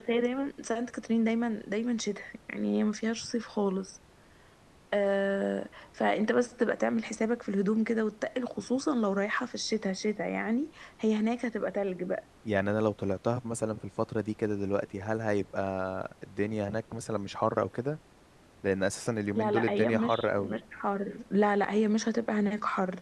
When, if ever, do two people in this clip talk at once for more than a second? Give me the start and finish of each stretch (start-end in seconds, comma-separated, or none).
19.4-20.6